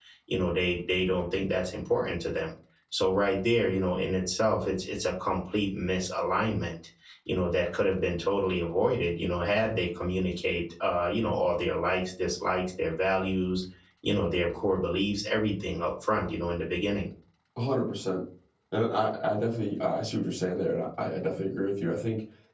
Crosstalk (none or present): none